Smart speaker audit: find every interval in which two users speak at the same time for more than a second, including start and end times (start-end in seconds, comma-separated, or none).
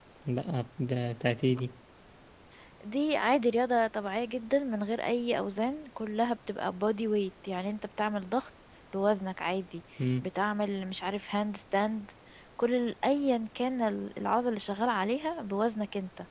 none